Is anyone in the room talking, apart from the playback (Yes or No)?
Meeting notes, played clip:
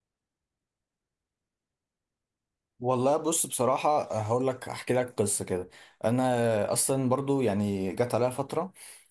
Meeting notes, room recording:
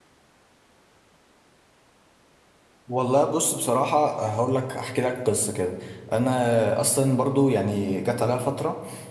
No